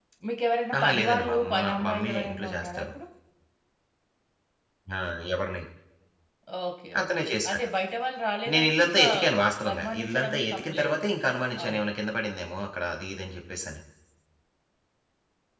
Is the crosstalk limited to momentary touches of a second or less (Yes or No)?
No